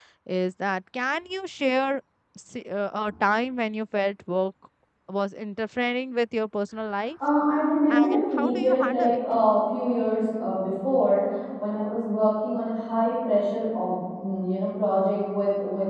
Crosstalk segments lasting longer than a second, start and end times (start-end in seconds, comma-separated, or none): 7.9-9.2